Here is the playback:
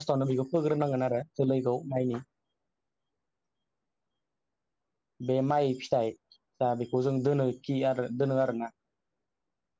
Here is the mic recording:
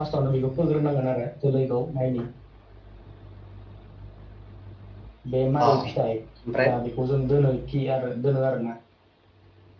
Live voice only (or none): अ ओमफ्राय